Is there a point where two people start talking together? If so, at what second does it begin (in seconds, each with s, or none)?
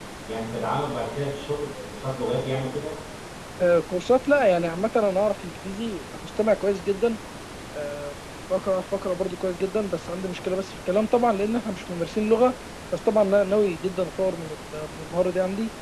none